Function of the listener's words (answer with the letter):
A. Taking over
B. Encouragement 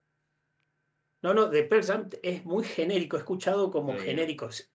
B